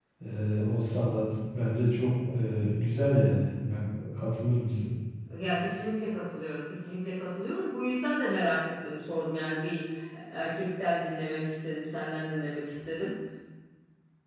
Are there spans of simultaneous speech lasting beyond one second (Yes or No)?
No